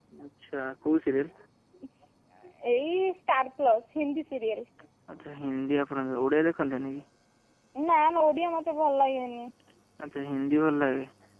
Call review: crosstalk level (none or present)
none